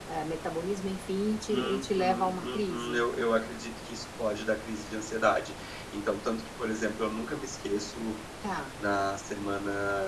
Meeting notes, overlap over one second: present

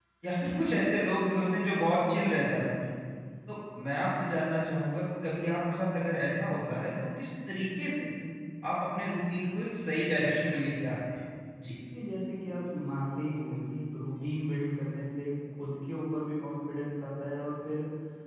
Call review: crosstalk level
none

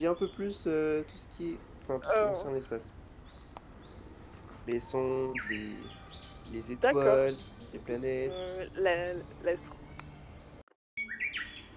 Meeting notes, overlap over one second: none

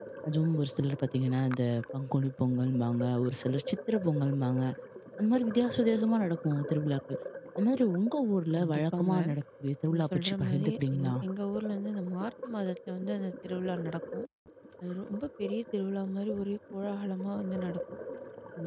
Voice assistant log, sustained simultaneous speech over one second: present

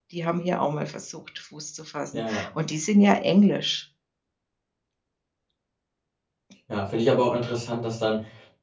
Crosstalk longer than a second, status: none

